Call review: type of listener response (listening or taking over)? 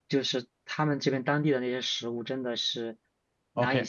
taking over